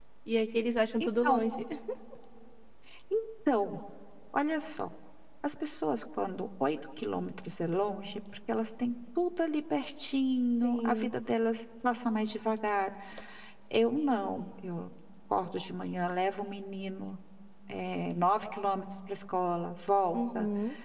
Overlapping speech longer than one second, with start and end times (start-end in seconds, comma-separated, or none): none